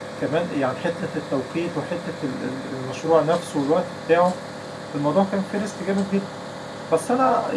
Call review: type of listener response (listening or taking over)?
taking over